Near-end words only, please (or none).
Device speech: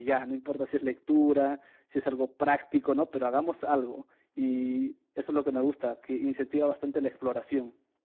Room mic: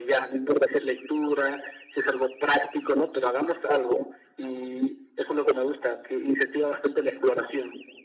none